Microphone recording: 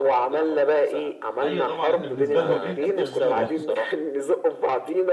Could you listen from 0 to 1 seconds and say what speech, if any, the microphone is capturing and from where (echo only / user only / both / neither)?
echo only